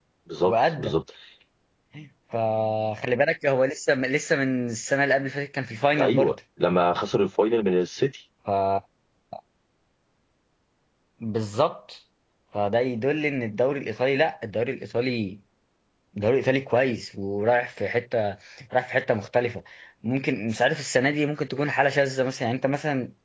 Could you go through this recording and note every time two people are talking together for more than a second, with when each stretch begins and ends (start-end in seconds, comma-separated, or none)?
none